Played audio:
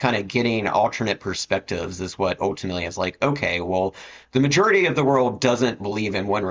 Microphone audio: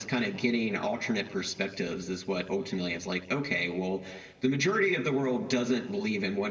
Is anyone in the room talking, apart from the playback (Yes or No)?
No